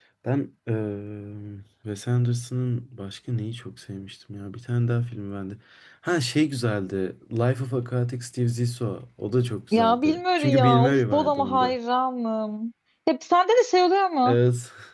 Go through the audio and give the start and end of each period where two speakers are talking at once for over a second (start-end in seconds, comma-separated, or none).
9.7-11.8